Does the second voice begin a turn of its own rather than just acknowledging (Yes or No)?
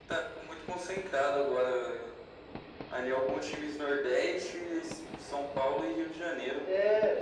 Yes